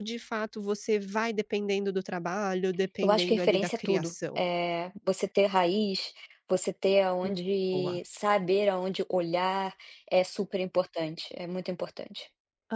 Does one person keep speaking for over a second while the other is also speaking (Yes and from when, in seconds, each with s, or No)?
Yes, from 3.0 s